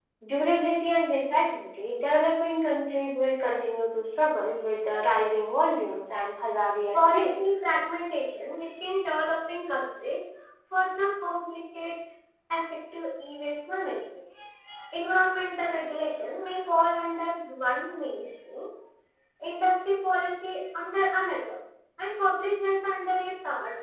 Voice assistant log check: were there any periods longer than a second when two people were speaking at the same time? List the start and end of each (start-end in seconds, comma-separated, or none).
none